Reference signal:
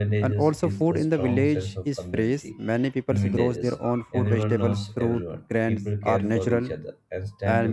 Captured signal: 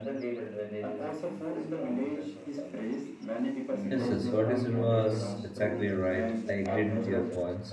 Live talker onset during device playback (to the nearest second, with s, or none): 4 s